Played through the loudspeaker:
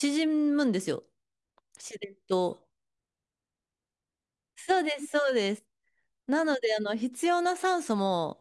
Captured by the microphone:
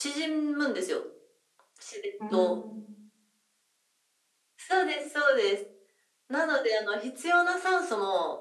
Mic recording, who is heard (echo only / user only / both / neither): both